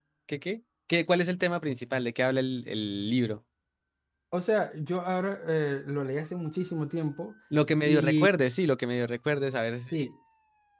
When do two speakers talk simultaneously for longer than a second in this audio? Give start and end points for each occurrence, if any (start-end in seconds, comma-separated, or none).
none